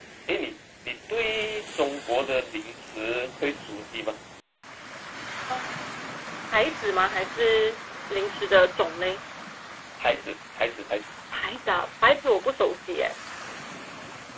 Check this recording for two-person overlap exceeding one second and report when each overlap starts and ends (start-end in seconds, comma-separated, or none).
none